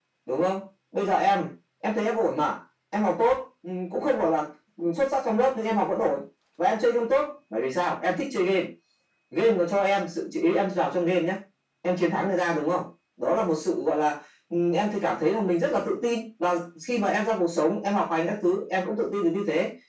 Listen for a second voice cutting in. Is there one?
No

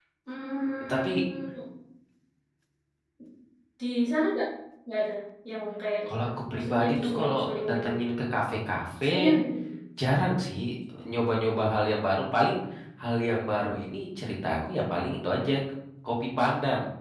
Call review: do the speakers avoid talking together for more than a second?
No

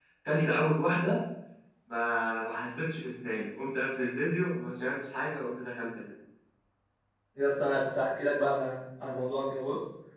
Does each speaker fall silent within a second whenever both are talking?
Yes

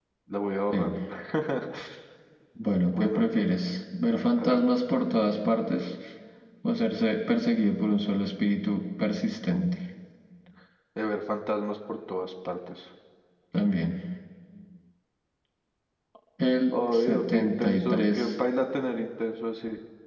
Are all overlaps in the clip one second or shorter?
No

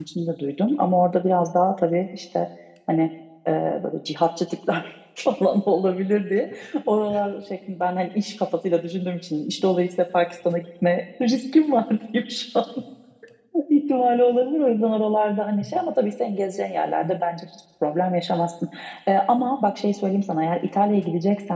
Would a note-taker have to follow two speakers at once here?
No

